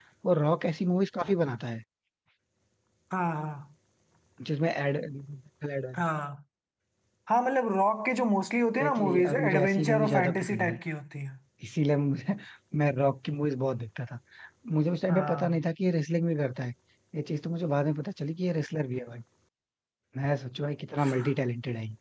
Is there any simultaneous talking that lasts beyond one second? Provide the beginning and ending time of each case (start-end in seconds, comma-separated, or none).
8.8-10.8